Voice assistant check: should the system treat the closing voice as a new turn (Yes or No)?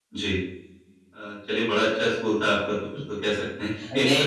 No